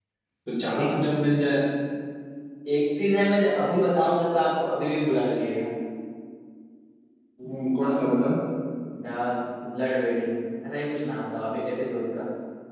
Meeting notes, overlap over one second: none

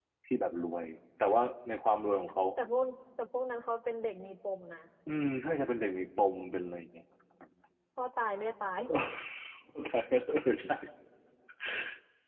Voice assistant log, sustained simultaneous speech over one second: none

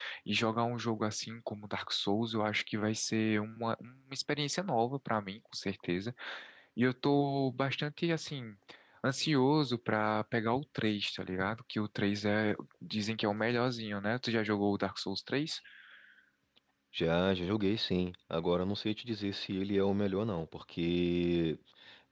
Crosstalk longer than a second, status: none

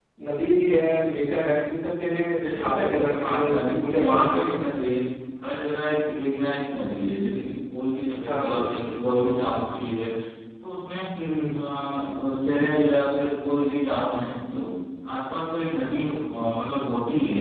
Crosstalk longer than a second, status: present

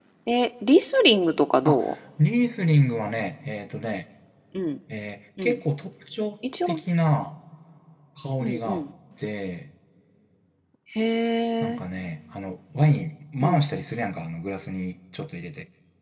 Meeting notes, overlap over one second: none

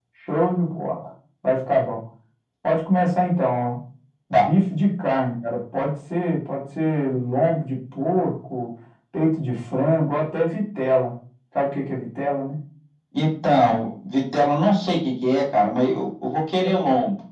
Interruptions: none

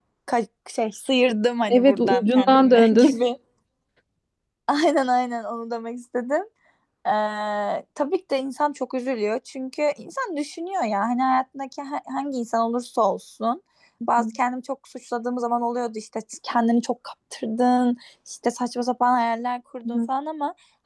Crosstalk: present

